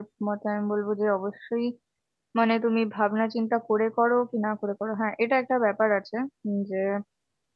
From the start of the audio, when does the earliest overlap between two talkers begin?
none

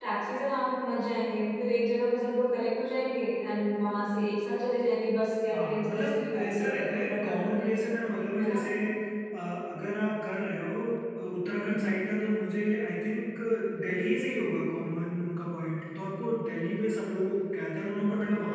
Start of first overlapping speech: 5.5 s

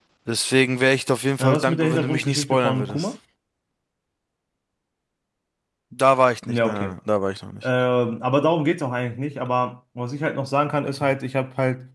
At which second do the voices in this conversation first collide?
1.4 s

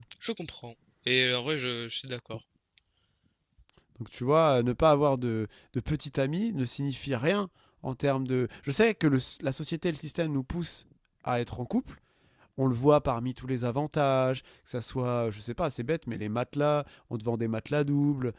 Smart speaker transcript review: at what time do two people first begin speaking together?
none

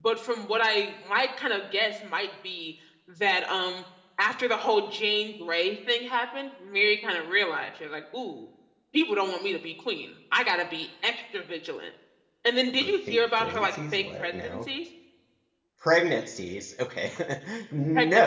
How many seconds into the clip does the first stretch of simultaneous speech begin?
12.8 s

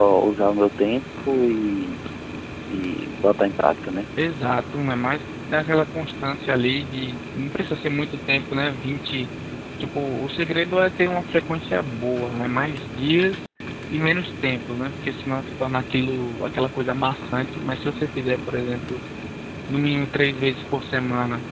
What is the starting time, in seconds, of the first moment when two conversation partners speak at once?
none

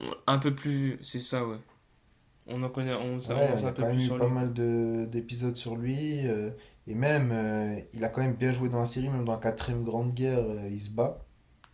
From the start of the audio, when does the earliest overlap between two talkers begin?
3.2 s

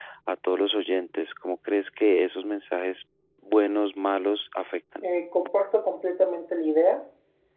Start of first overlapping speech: none

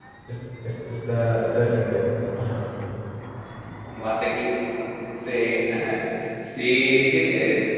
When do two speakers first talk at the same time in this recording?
none

